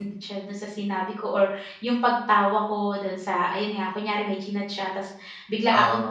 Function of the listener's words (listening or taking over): listening